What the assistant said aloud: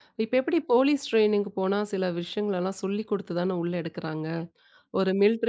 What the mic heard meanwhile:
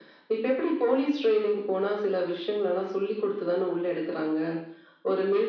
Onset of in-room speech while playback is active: none

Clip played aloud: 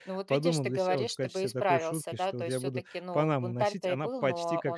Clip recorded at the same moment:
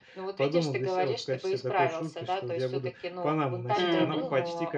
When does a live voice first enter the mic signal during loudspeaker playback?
3.8 s

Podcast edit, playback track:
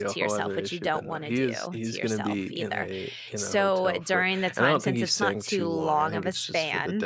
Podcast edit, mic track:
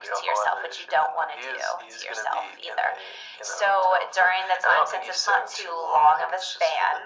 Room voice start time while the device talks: none

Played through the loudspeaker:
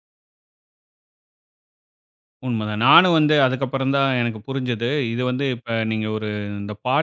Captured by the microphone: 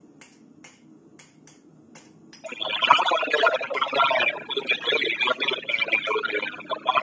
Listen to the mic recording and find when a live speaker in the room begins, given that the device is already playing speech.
none

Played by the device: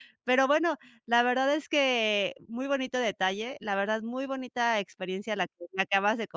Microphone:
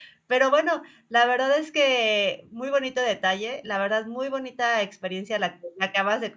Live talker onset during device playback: none

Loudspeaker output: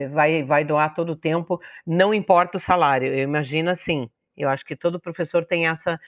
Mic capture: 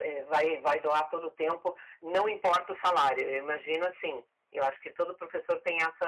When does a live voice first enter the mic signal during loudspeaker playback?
none

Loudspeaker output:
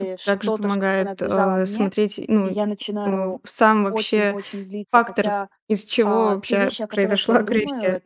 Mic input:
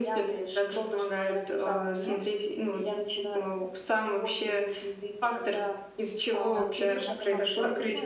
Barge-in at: 6.5 s

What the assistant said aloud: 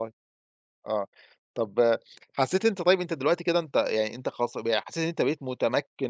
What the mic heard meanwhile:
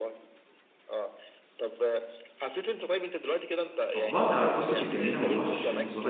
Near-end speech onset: 4.0 s

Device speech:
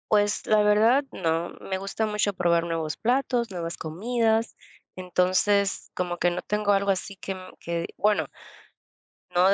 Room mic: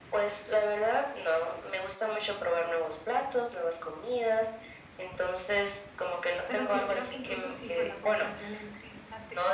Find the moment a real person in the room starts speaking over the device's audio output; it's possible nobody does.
6.4 s

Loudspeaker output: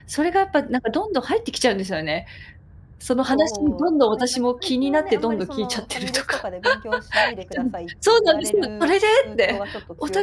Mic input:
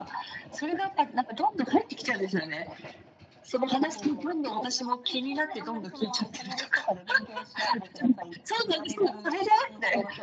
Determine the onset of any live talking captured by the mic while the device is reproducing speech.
none

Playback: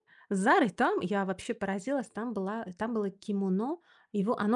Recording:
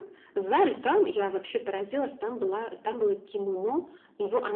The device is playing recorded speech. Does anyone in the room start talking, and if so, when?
none

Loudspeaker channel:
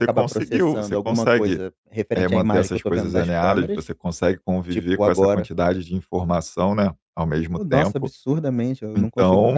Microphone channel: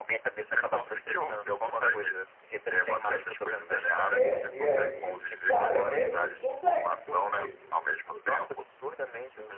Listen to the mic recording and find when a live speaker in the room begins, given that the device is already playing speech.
4.1 s

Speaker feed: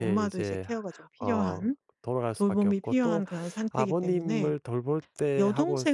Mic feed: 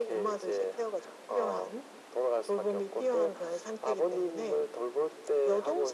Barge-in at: none

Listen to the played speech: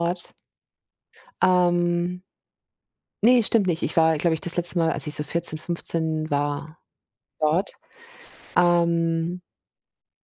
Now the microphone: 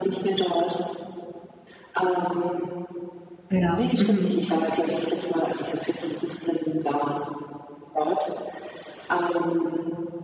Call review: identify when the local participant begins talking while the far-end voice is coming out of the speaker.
3.5 s

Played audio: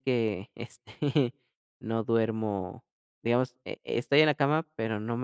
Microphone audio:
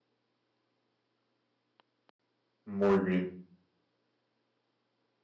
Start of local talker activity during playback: 2.6 s

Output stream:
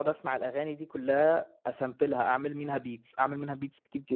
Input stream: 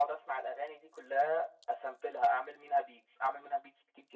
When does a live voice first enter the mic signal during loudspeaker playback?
none

